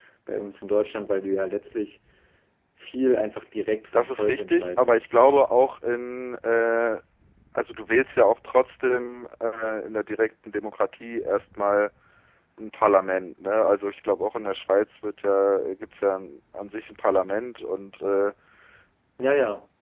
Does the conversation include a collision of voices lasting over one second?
Yes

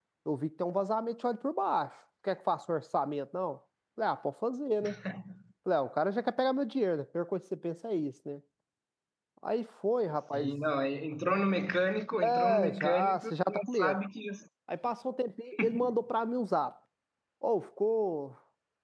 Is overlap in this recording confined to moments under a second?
No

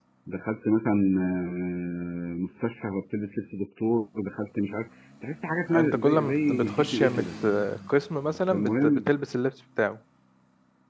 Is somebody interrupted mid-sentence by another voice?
Yes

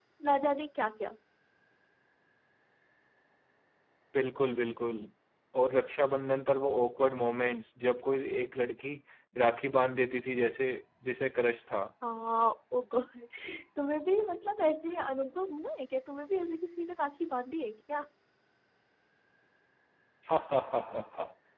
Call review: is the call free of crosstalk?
Yes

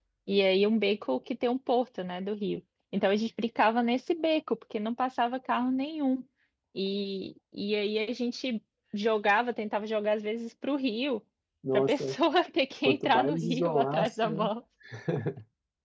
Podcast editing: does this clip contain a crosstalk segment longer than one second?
Yes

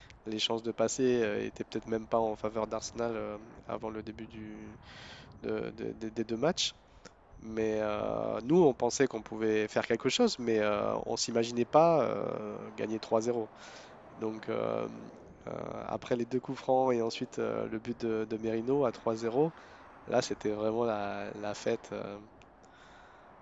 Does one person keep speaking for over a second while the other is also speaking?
No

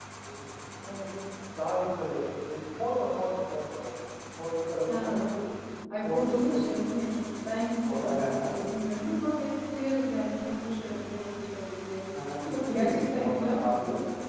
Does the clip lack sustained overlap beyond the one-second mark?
No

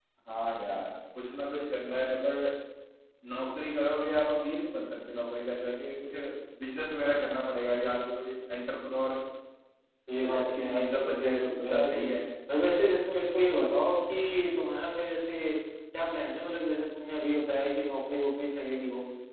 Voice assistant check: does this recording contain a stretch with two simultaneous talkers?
Yes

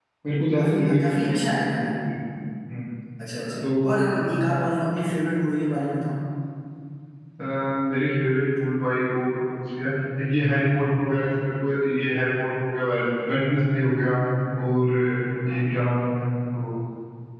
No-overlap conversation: No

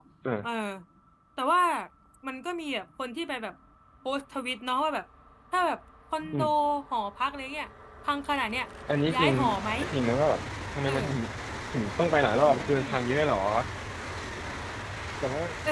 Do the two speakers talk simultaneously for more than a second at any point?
No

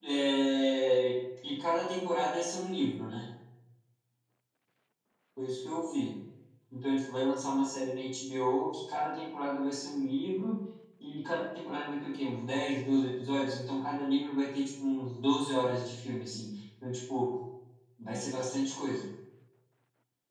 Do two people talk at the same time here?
No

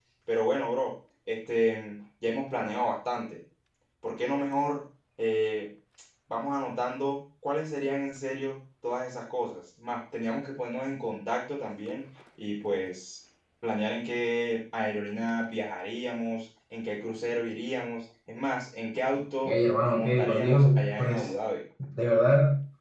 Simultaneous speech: Yes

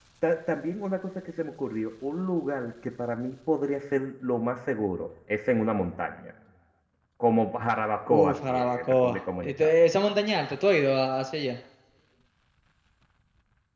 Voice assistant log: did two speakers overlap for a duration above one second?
Yes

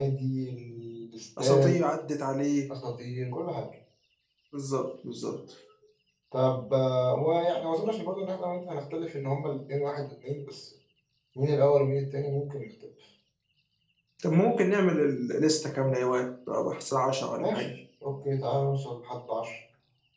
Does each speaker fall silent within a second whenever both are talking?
Yes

